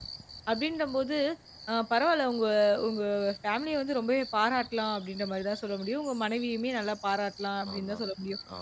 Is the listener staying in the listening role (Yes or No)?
Yes